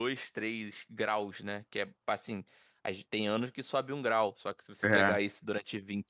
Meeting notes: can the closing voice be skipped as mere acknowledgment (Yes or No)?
Yes